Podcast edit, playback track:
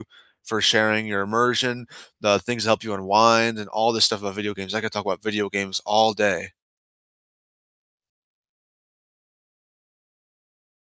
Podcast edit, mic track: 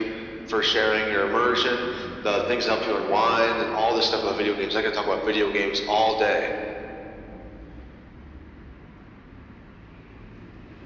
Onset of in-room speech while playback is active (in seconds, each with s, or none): none